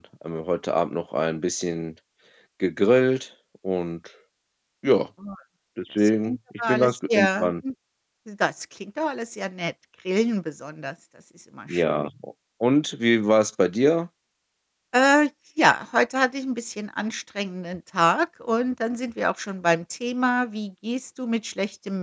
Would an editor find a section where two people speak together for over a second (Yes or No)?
Yes